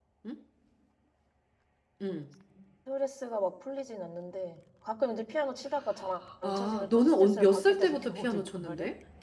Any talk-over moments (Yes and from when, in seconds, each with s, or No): Yes, from 6.4 s